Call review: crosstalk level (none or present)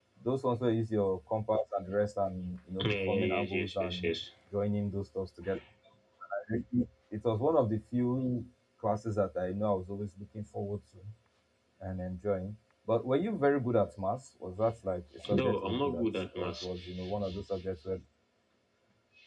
present